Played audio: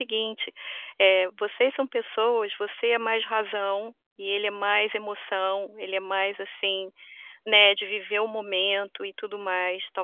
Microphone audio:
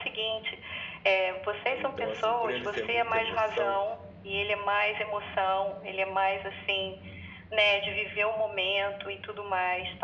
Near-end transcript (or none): Então, assim, por ele ser muita emoção,